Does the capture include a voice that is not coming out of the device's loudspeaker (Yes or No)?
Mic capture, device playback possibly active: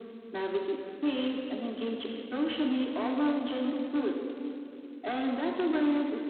No